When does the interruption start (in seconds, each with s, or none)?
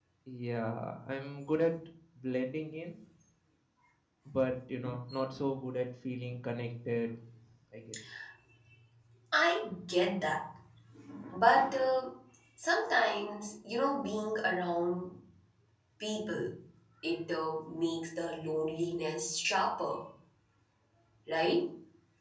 none